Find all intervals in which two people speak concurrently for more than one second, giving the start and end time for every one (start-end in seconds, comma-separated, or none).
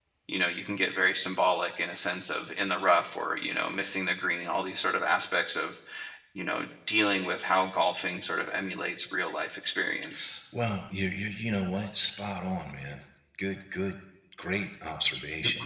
none